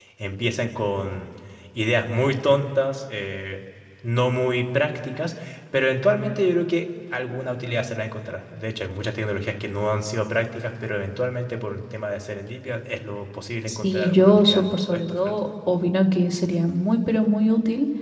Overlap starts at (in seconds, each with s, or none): 13.7 s